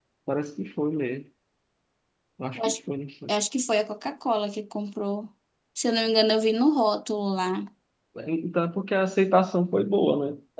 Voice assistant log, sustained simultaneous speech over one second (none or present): none